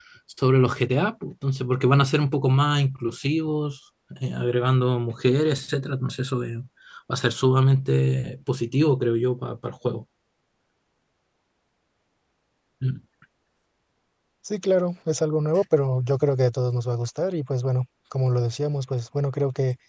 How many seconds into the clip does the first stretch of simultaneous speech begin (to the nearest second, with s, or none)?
none